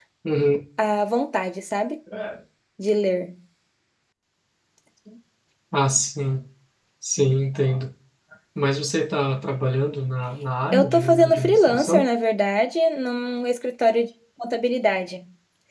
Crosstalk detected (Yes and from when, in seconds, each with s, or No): Yes, from 10.7 s